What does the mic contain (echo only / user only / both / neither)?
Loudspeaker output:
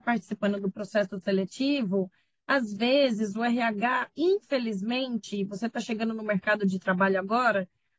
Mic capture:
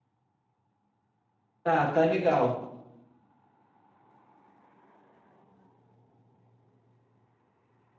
user only